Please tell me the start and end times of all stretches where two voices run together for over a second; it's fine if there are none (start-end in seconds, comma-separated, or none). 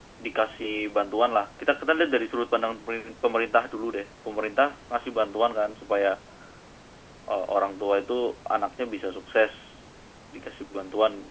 none